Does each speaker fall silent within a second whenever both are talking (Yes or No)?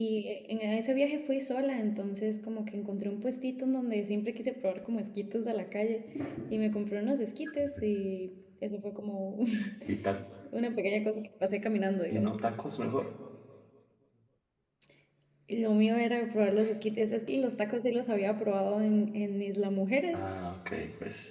Yes